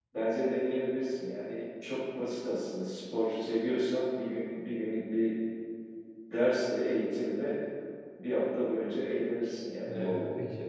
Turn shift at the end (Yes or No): Yes